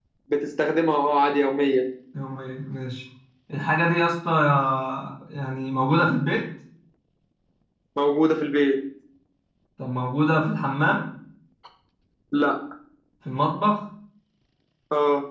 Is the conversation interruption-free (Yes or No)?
Yes